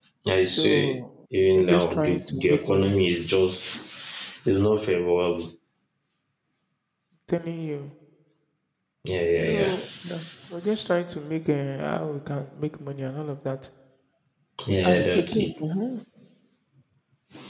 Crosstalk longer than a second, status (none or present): present